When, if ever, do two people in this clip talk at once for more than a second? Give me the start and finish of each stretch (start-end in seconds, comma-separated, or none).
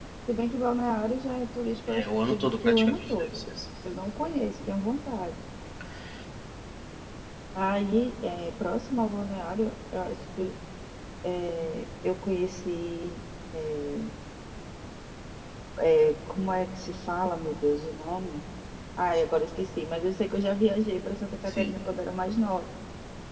2.0-3.4